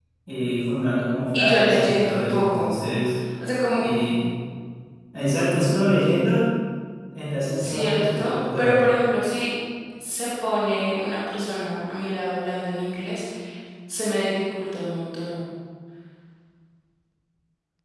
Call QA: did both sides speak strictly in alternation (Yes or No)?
No